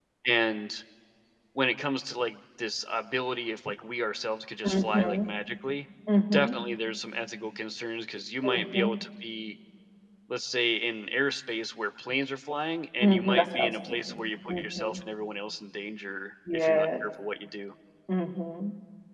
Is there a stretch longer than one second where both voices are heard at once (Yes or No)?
Yes